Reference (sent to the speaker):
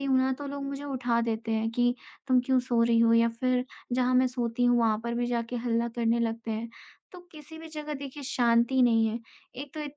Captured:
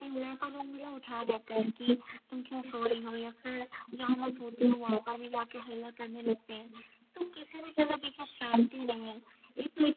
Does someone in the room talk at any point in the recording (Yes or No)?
No